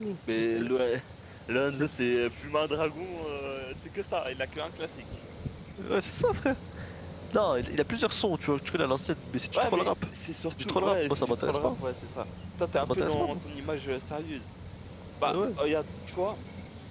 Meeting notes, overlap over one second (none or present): present